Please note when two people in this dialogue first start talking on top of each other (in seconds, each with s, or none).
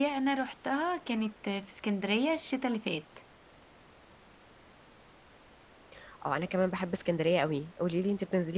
none